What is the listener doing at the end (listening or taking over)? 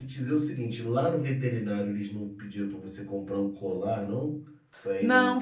taking over